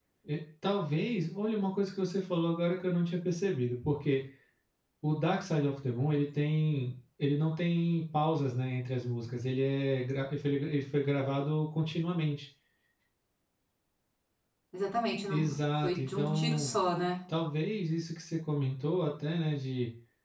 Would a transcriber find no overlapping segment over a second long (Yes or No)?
No